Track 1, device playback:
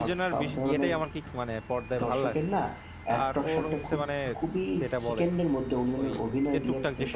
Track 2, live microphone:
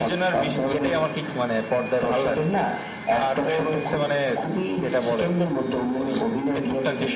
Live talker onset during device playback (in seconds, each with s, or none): none